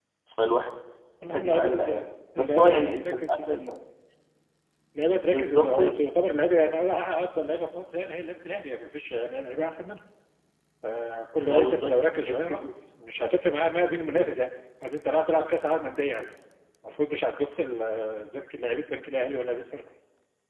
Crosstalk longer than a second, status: present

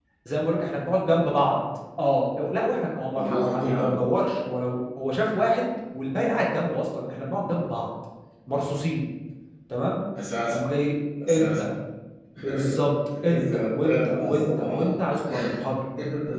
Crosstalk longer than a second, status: present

